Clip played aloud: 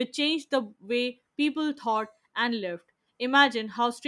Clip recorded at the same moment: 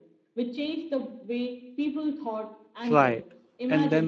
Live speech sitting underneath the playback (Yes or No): No